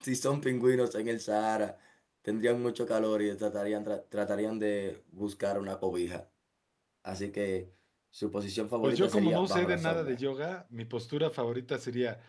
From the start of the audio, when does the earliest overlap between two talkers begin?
8.8 s

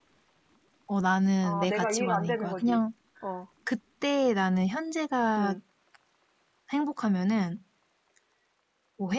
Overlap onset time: 1.4 s

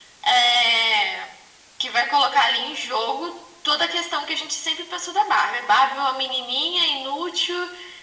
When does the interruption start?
none

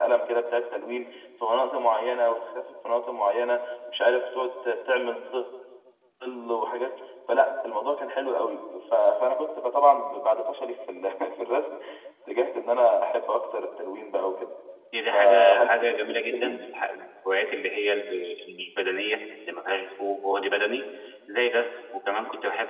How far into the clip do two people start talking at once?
15.1 s

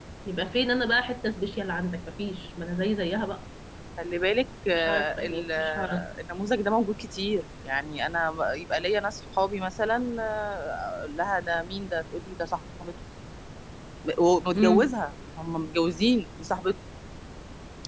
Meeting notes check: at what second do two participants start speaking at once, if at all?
4.7 s

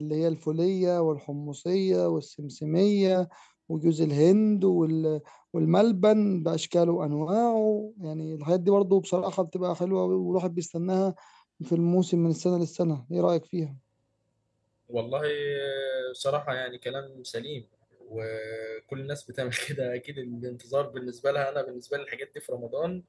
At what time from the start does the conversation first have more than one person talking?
none

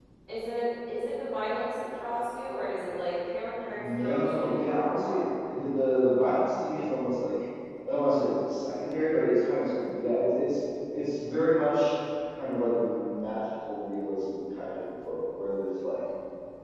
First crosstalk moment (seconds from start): 3.7 s

